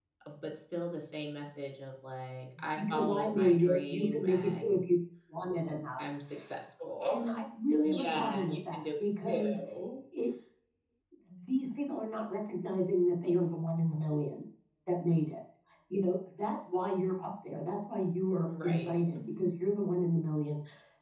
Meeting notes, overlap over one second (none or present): present